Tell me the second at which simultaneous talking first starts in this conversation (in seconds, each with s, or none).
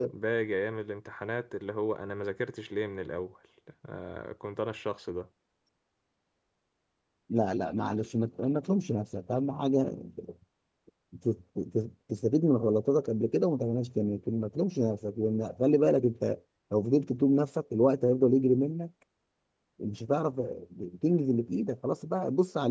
none